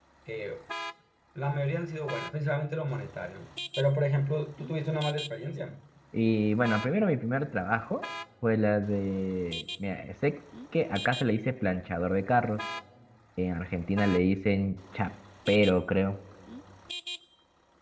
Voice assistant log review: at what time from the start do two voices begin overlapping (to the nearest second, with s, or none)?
none